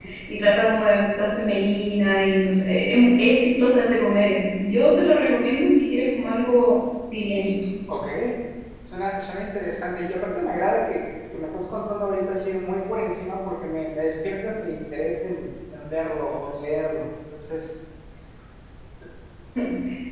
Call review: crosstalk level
none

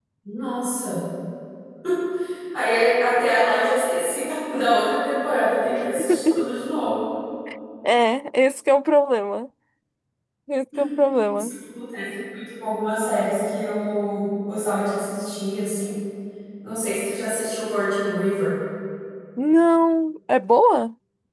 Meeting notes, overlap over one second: none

